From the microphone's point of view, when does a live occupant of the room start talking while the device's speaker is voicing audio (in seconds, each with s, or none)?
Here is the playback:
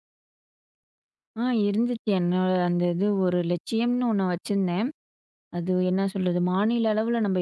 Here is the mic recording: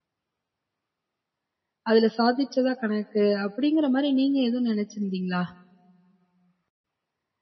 1.9 s